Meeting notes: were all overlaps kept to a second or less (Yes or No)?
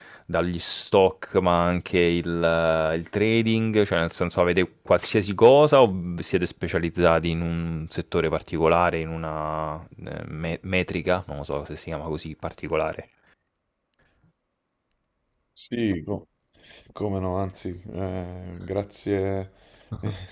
Yes